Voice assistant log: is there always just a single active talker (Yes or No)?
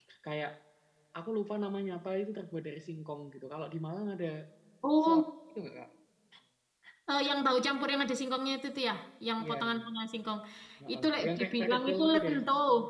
No